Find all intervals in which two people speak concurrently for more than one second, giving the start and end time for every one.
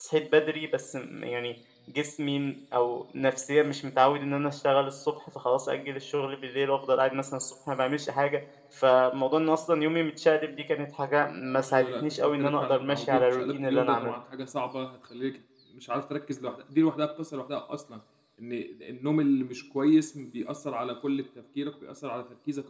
11.7-14.1

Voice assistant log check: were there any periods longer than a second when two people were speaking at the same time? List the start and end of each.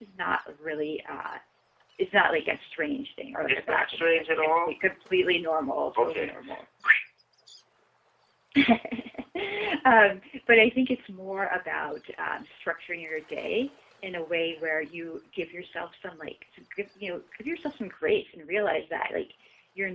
3.5-4.7

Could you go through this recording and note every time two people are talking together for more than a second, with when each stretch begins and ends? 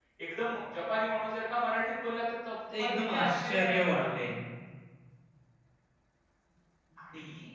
2.8-4.2

